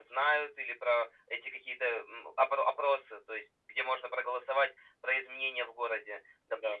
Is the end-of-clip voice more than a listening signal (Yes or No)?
No